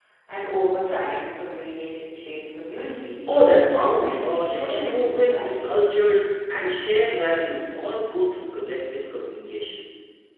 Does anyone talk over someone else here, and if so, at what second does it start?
3.7 s

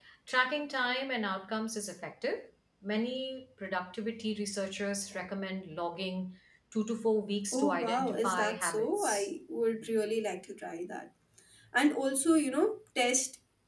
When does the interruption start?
7.5 s

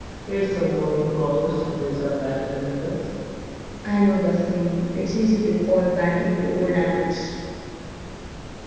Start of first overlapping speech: none

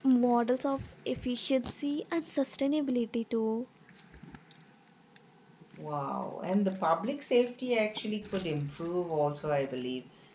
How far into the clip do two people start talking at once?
none

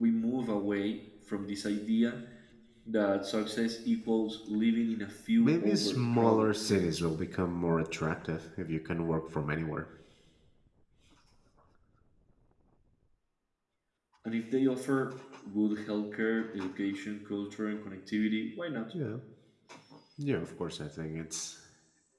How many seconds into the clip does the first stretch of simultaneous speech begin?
5.4 s

